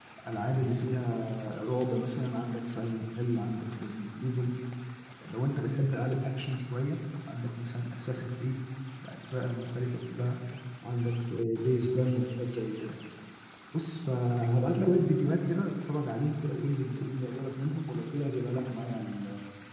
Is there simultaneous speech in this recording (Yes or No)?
No